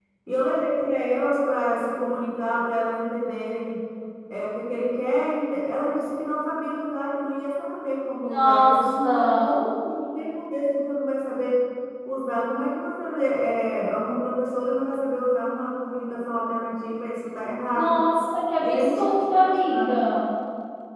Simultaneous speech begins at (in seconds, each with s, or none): 8.2 s